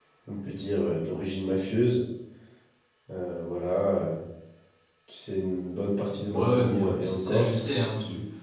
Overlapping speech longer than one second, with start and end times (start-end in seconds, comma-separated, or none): 6.2-7.6